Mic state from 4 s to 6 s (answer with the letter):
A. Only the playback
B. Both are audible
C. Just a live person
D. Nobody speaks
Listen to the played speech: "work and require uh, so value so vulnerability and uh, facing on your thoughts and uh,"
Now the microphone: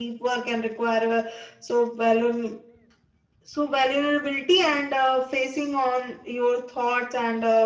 A